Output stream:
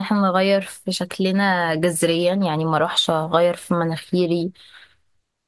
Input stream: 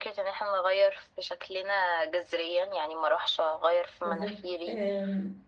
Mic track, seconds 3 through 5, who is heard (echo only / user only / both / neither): both